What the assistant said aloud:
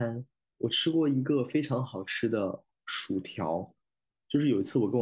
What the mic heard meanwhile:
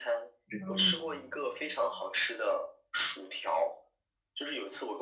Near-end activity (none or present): present